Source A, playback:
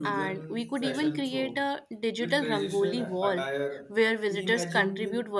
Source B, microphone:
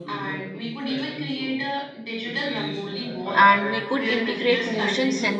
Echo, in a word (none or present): present